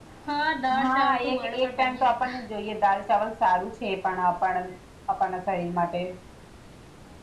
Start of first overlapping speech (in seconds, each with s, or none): 0.8 s